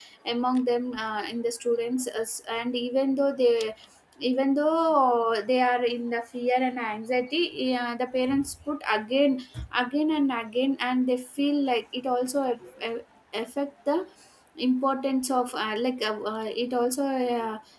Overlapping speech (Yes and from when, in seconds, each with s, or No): No